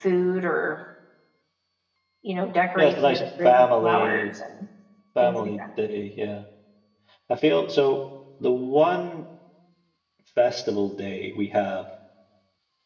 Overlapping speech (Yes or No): Yes